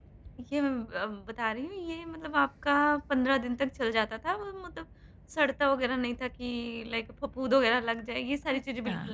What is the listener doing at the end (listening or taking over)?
taking over